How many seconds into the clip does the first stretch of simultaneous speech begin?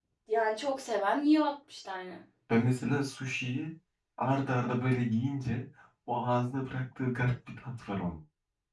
none

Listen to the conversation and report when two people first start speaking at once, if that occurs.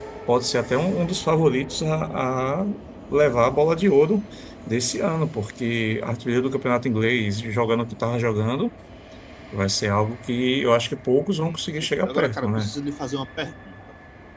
11.4 s

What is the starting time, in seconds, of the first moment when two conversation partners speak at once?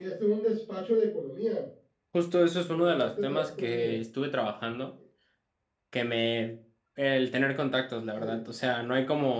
2.7 s

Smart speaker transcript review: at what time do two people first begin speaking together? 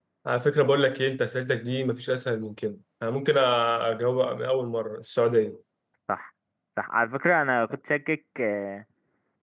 none

